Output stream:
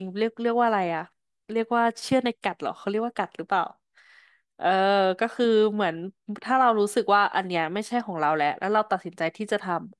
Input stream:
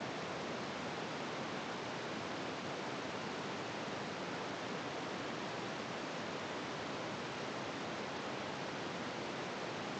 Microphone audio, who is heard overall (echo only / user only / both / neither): neither